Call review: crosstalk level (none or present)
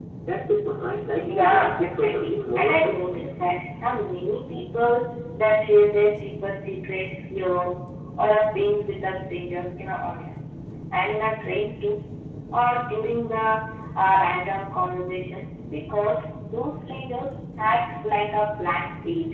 present